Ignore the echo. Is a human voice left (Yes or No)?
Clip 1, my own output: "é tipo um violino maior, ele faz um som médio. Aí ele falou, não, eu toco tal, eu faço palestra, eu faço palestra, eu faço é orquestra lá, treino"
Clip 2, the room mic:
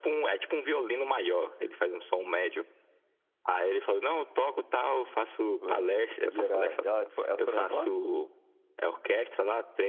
Yes